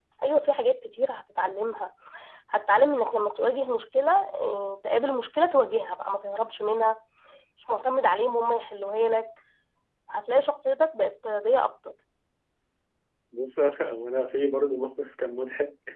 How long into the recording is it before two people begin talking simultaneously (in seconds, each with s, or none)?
none